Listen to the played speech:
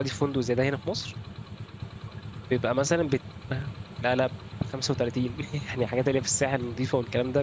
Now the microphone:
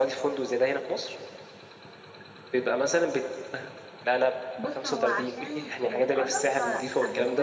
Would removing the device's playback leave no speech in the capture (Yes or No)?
No